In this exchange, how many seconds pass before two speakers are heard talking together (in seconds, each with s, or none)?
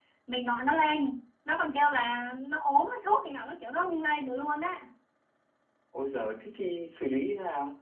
none